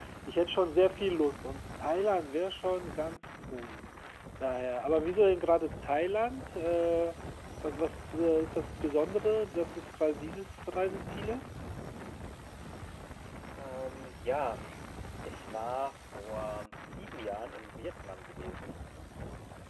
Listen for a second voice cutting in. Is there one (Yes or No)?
No